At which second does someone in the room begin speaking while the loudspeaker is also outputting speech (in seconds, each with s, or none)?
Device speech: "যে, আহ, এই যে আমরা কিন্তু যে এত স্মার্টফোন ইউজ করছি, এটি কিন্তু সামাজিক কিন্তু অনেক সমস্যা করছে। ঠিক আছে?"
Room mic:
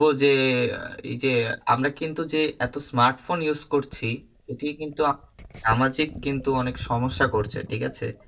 none